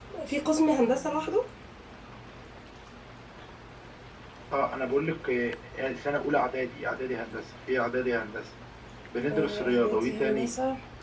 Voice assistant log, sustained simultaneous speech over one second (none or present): present